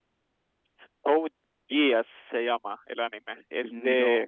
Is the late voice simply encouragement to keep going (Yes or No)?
Yes